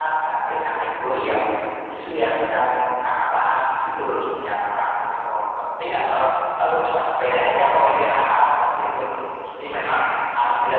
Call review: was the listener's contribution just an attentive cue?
Yes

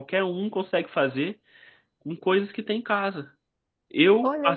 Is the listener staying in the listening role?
Yes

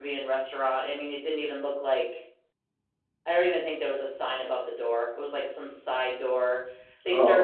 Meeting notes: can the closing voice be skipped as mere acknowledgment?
Yes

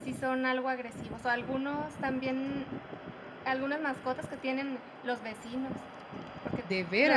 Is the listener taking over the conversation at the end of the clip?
No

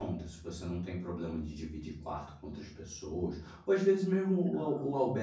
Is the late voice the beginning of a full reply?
No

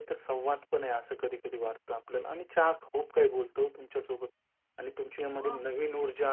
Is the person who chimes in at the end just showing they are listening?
Yes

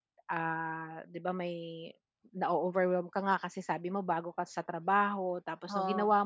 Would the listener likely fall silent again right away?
Yes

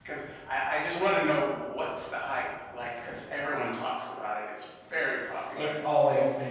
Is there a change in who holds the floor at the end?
Yes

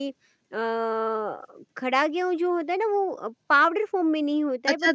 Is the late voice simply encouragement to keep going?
No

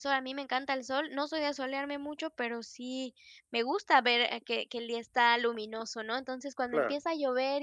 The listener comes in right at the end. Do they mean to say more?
No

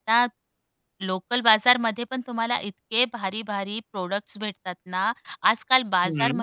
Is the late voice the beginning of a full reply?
No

